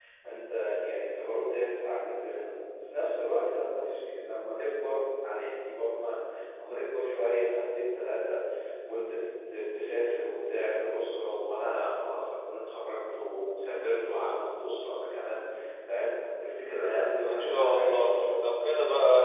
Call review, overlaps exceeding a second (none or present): present